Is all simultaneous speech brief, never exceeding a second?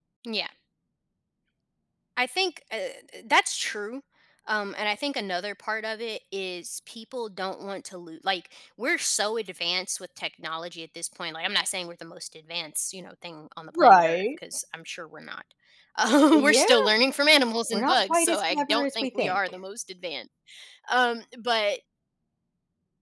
No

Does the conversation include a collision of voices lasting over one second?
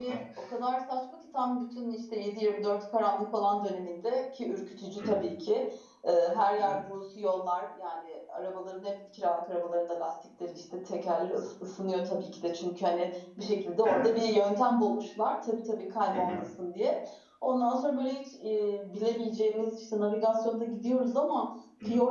No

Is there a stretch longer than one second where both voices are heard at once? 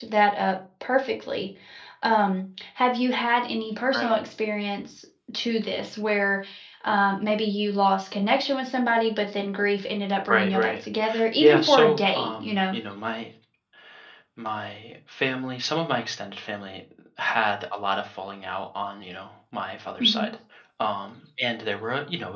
Yes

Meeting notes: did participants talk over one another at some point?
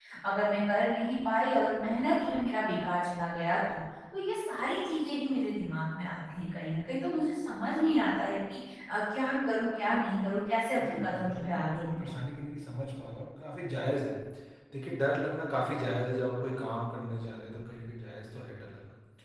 Yes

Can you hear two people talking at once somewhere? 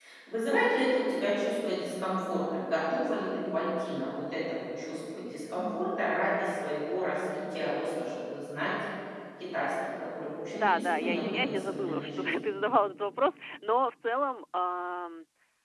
Yes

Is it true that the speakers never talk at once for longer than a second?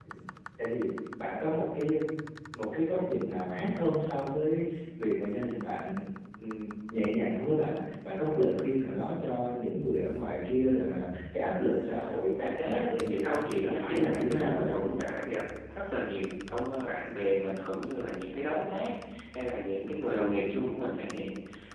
No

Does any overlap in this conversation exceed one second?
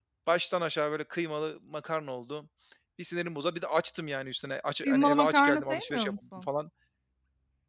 Yes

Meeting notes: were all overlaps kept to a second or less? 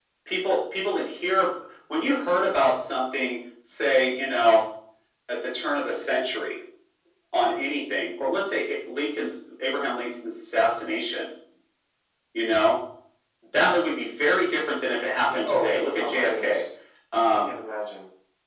No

